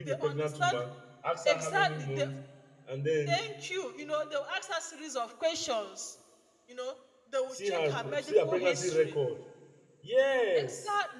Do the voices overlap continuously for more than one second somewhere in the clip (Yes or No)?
Yes